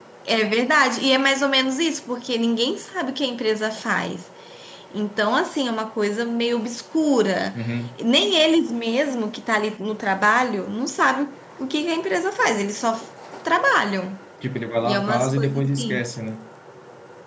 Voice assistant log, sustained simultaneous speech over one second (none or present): present